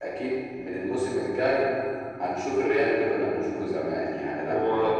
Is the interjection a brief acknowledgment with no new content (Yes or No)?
Yes